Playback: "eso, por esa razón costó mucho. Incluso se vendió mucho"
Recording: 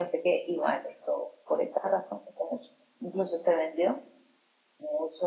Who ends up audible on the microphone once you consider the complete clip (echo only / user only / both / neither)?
echo only